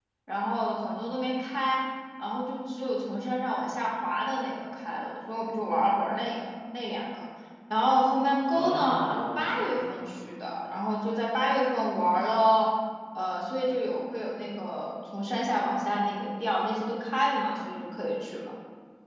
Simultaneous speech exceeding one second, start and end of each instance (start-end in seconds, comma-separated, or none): 8.5-10.0